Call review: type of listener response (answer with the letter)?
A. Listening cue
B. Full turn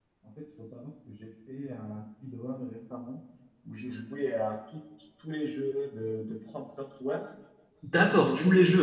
B